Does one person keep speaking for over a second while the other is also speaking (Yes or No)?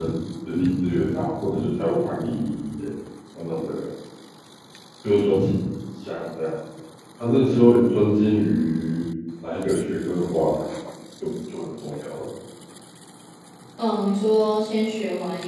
No